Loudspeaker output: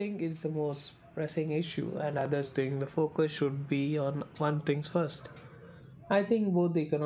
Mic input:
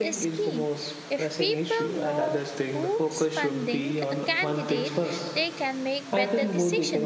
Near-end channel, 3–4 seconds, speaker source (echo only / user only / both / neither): both